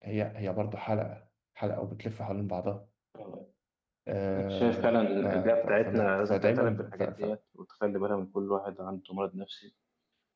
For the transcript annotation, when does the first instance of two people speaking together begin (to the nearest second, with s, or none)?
4 s